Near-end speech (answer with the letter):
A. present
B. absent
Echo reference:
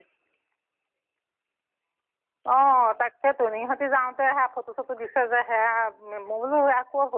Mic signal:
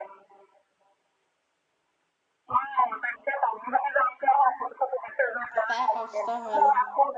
A